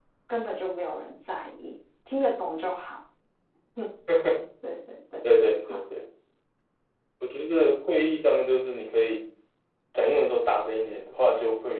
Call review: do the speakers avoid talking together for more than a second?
Yes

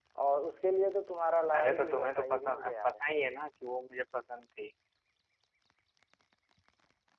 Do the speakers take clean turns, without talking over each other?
No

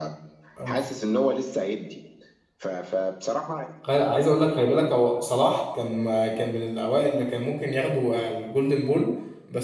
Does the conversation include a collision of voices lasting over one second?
No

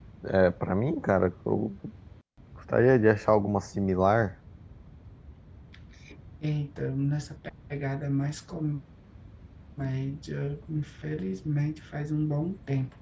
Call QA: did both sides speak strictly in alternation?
Yes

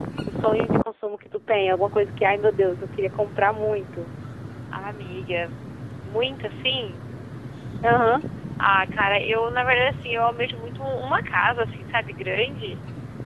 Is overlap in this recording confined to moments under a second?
Yes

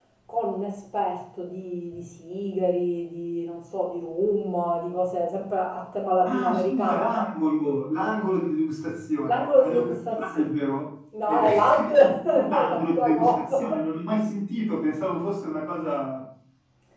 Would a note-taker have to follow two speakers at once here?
Yes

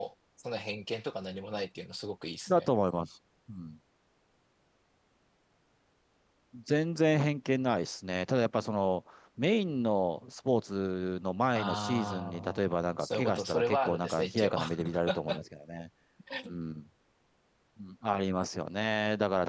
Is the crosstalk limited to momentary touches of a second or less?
No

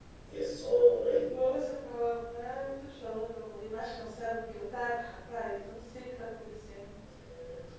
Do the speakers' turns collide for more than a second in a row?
No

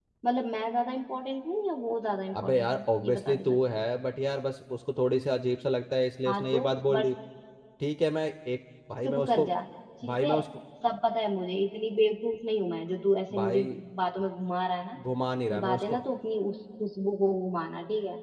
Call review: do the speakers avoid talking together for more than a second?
No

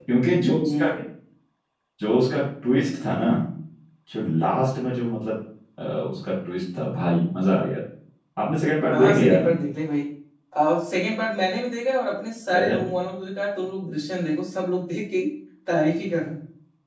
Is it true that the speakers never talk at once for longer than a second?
Yes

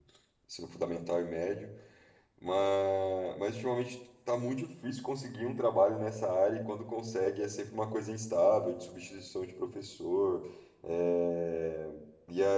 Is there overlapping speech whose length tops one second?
No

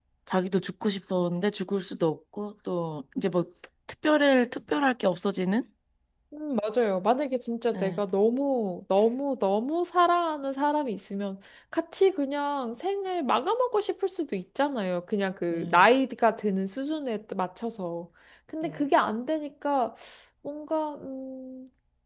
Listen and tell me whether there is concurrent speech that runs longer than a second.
No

